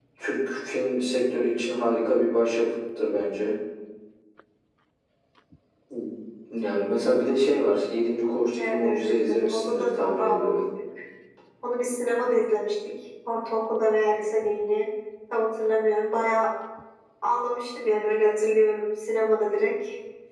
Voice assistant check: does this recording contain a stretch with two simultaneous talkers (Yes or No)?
Yes